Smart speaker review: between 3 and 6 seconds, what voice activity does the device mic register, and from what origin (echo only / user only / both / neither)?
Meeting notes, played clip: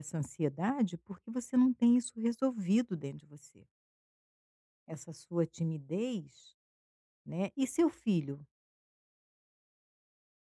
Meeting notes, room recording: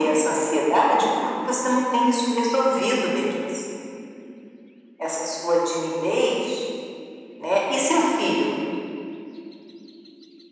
echo only